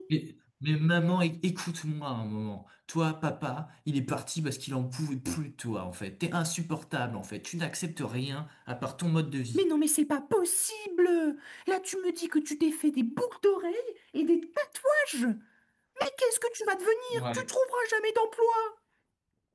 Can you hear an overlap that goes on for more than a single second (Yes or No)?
No